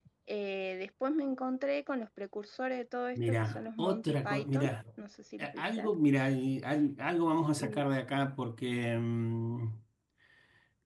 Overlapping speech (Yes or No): Yes